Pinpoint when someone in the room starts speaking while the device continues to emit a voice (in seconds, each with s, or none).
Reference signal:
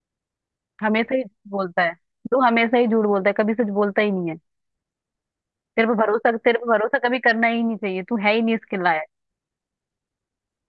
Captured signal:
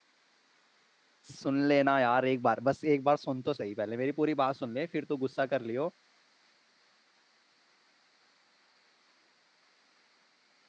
1.3 s